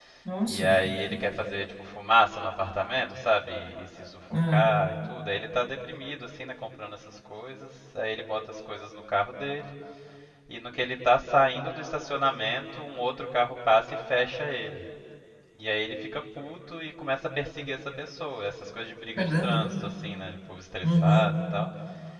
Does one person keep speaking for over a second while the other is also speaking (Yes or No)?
No